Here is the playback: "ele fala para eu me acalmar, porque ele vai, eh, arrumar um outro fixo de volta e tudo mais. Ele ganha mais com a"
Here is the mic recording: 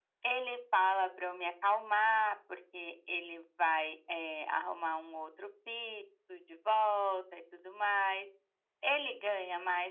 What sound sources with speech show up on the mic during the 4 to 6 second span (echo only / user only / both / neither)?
echo only